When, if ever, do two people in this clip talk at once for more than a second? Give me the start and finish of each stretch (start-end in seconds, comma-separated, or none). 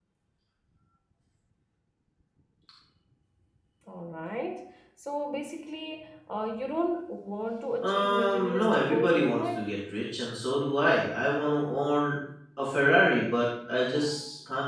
7.8-9.6